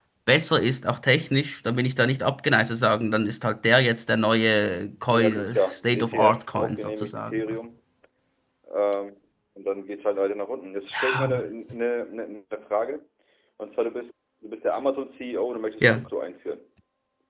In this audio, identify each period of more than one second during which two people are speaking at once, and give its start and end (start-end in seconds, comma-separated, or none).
5.1-7.6